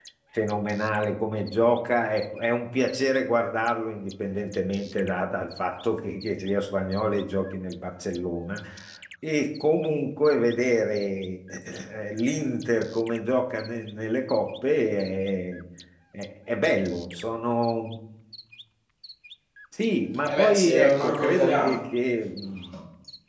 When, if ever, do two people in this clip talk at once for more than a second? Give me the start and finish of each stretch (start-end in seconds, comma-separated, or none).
20.3-21.8